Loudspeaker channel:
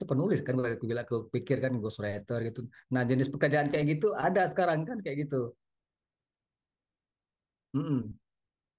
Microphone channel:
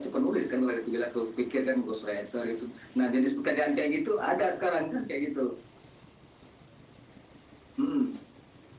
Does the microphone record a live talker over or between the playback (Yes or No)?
No